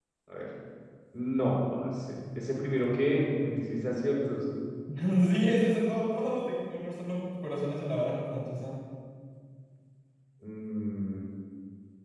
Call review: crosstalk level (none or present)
none